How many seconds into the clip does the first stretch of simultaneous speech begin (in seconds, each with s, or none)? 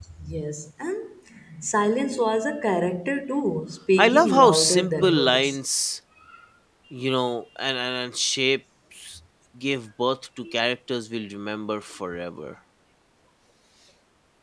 4.0 s